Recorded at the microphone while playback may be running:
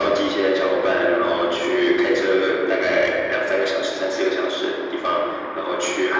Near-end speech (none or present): none